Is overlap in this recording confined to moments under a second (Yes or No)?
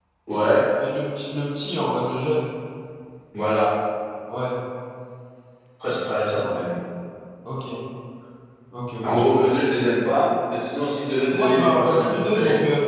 No